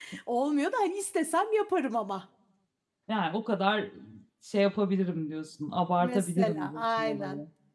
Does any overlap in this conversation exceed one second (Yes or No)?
Yes